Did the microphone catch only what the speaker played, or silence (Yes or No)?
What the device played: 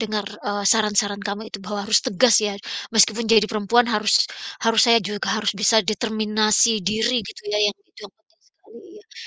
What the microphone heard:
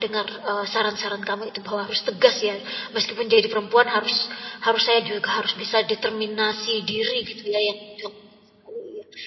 Yes